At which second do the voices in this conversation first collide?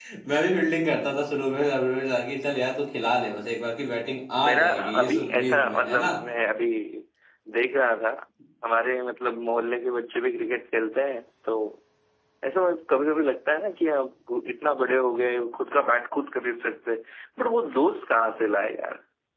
4.4 s

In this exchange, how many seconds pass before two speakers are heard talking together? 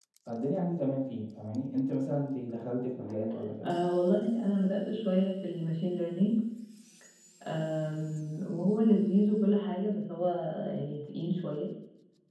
none

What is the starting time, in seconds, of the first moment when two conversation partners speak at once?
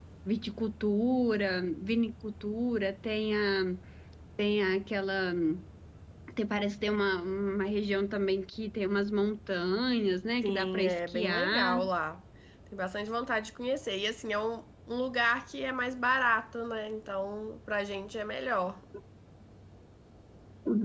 10.4 s

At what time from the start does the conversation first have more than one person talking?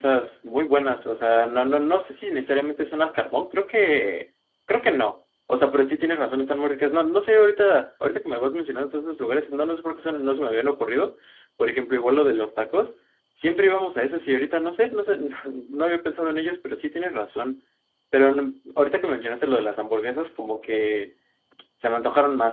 none

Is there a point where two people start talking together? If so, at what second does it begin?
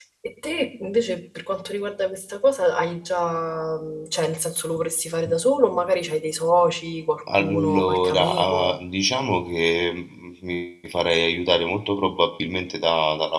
7.3 s

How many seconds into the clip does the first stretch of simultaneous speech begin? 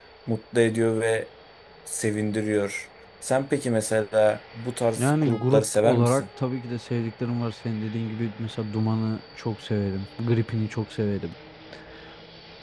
5.0 s

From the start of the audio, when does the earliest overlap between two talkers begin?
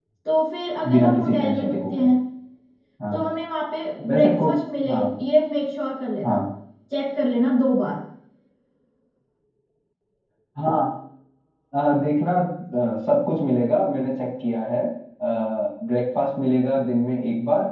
0.9 s

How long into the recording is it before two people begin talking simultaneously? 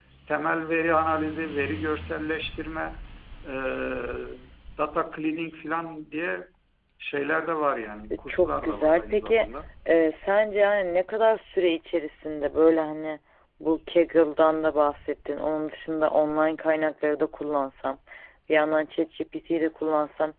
8.1 s

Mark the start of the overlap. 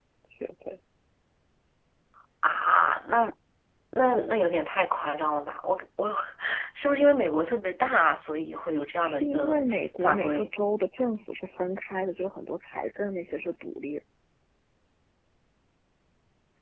9.0 s

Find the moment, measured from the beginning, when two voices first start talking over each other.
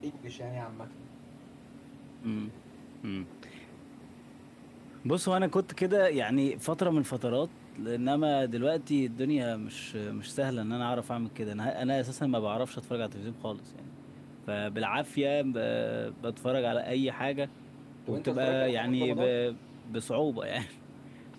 18.1 s

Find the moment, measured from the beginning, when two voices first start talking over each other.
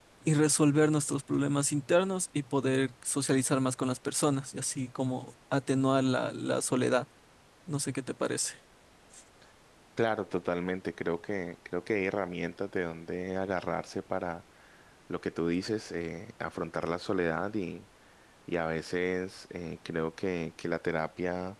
none

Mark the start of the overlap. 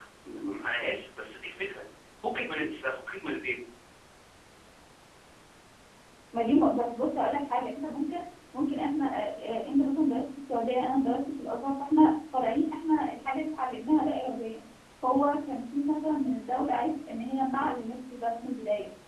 none

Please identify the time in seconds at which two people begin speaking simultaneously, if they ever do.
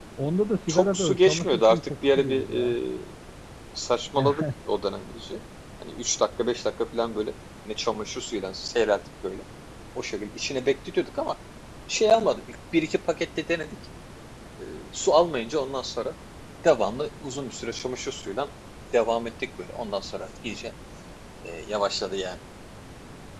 0.7 s

